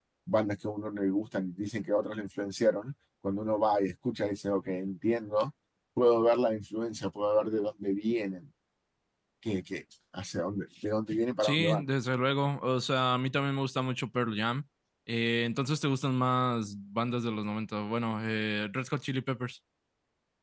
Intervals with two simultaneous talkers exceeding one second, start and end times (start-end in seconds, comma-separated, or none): none